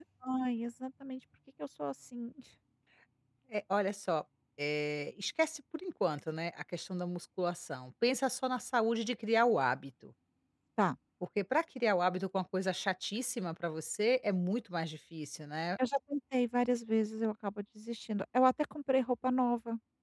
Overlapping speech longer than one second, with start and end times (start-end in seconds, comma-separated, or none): none